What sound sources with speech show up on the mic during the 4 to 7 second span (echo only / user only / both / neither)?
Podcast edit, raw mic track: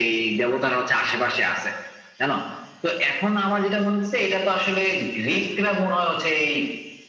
echo only